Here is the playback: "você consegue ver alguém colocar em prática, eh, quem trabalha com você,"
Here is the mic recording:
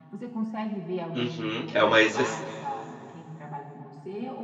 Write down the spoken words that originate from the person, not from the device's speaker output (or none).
Uhum. É uma exce